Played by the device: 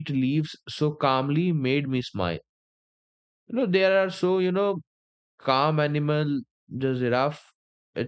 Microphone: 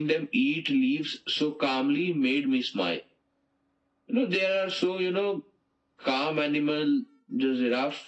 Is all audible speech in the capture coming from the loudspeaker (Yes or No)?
Yes